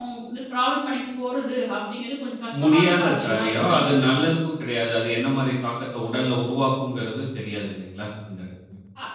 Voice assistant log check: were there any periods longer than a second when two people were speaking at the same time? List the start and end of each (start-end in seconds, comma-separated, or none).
2.6-4.2